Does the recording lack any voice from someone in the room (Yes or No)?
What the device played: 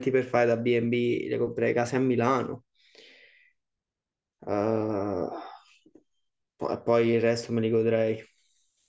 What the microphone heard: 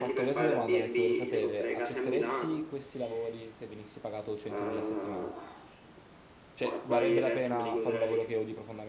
No